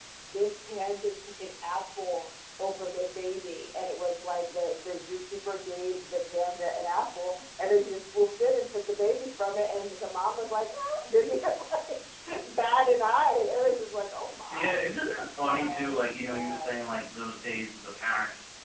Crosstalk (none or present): present